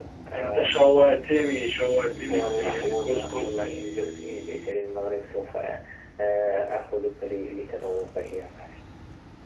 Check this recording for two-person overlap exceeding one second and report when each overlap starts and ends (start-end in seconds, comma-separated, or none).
2.3-3.5